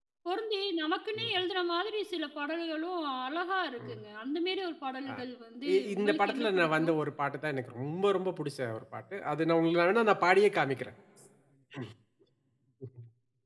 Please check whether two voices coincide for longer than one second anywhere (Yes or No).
Yes